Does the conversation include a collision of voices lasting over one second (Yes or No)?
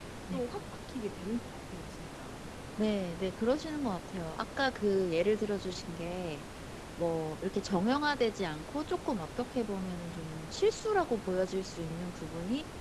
No